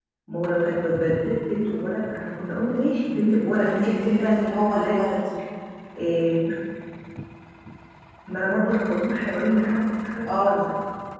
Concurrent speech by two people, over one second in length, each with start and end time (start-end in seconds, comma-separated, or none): 3.6-5.0